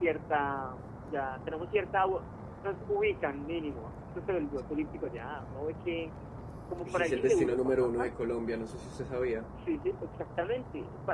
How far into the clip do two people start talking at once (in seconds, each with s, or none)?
6.9 s